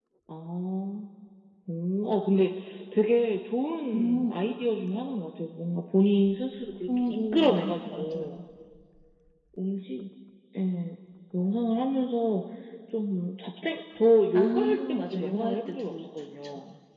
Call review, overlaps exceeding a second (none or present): present